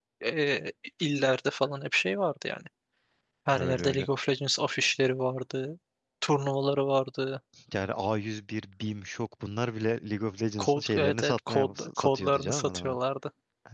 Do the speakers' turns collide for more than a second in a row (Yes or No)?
Yes